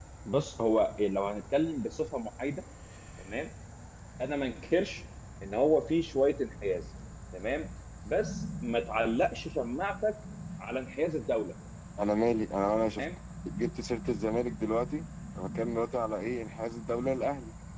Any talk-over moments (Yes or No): No